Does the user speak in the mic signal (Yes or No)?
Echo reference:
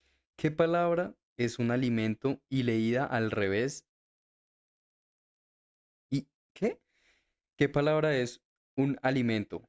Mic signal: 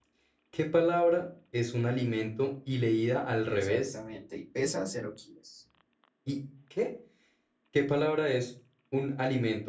Yes